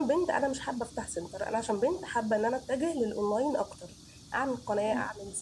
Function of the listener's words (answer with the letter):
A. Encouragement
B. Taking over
A